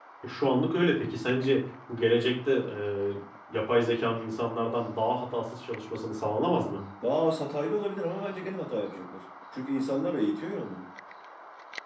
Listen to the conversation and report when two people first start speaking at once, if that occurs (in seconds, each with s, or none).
none